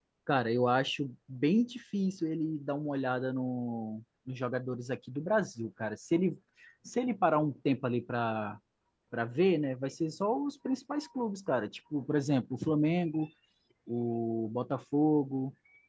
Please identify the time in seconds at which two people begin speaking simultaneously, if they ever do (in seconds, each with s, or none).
none